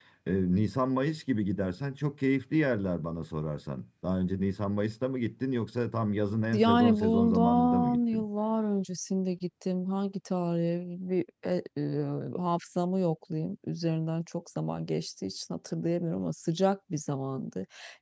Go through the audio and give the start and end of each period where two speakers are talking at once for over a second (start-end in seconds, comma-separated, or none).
6.5-8.2